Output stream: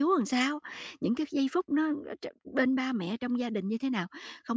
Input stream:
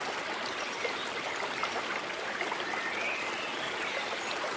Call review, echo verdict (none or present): none